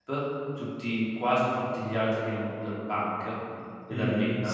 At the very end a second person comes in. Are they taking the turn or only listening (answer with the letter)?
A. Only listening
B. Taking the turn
B